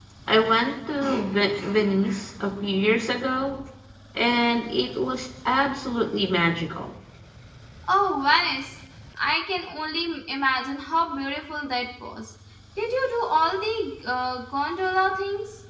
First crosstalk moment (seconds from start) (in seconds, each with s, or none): none